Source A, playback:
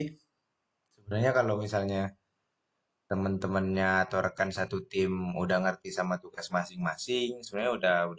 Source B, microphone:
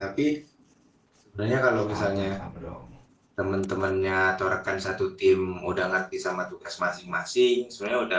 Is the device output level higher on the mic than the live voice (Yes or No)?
Yes